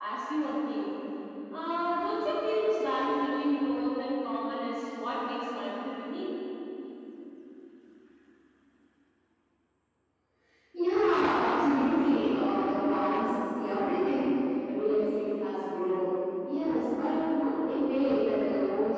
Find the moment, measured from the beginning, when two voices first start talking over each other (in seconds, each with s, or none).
none